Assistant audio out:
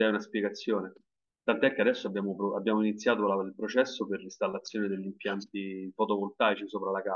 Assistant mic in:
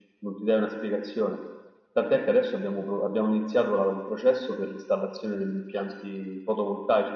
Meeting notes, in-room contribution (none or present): none